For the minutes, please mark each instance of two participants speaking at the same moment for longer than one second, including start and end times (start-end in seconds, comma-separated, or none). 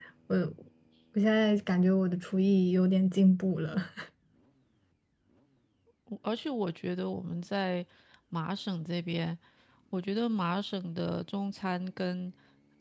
none